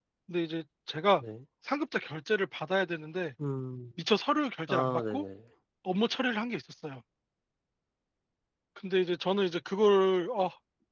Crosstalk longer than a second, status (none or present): none